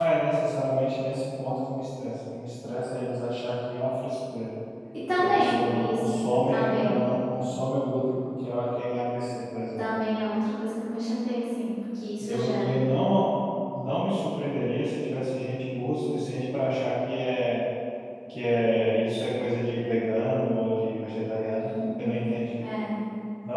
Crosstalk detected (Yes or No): Yes